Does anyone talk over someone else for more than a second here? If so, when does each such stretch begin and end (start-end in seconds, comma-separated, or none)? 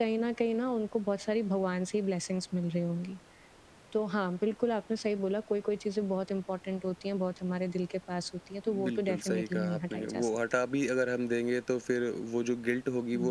8.8-10.3